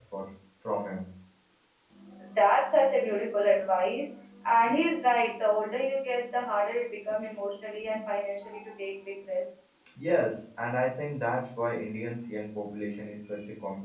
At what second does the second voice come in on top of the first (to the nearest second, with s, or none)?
none